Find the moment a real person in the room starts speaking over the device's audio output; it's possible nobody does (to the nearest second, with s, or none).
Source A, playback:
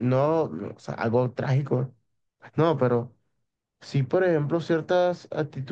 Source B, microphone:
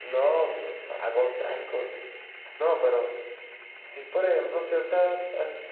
none